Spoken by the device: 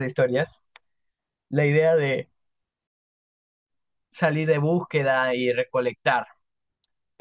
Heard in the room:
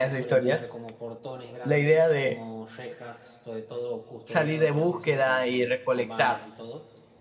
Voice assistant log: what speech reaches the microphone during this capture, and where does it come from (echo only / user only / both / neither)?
both